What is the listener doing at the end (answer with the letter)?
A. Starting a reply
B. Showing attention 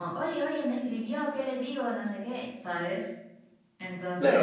A